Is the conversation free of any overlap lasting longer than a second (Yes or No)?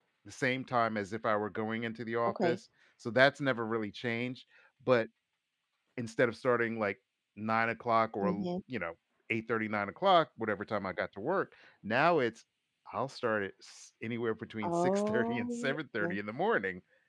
No